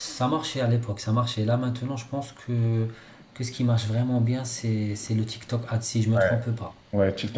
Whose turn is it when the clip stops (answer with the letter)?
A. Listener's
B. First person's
A